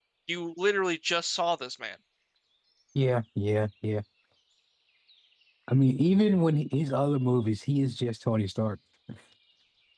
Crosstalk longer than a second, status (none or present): none